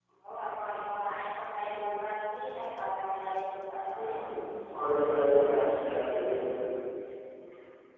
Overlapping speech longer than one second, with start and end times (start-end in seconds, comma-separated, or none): none